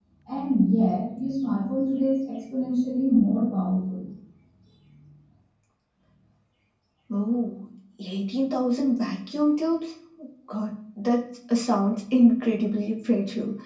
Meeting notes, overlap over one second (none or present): none